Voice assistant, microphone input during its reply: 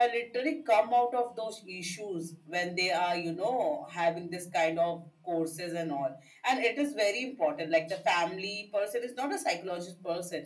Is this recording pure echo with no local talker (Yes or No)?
Yes